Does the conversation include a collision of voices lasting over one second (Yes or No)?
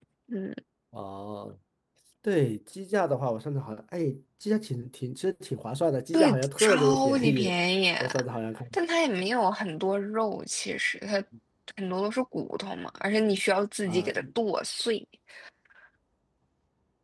Yes